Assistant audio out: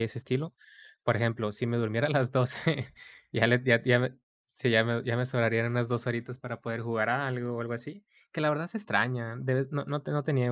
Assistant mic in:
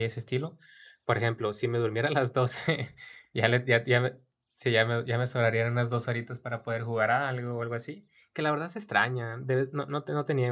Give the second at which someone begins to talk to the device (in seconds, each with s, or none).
none